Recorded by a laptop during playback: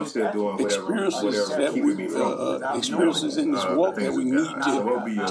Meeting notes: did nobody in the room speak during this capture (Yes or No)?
No